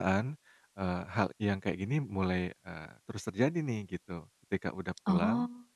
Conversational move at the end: listening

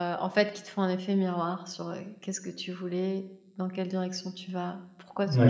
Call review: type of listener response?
taking over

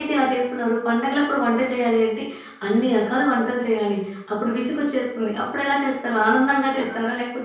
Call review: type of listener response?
taking over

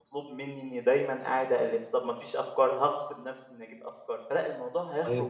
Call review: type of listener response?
taking over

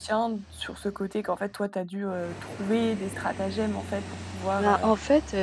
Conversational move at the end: taking over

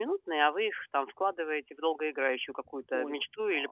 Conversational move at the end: taking over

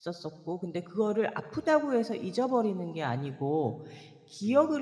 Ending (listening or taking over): listening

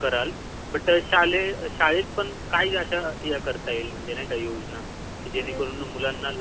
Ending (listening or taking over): listening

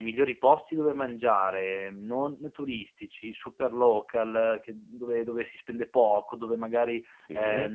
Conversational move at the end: listening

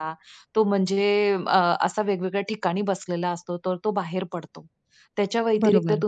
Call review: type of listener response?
listening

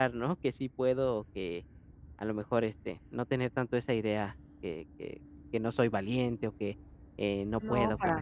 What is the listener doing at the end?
taking over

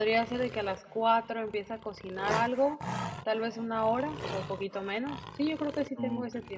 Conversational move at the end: taking over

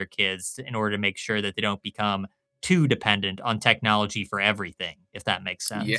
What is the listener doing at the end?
taking over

